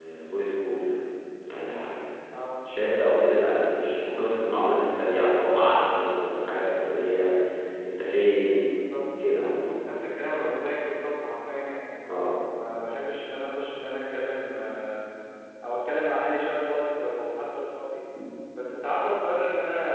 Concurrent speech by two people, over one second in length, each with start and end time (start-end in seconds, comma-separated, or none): none